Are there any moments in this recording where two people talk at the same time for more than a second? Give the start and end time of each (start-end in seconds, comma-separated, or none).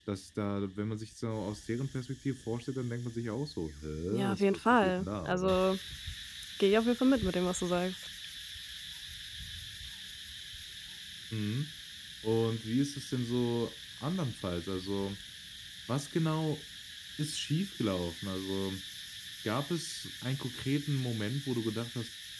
4.3-5.6